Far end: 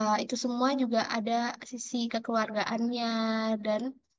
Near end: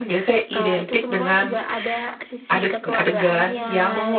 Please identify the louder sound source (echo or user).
user